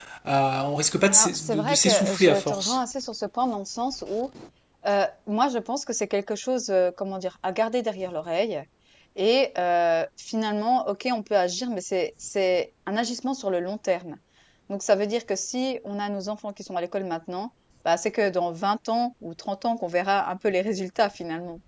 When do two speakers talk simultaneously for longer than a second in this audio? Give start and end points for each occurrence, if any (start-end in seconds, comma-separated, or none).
1.1-2.8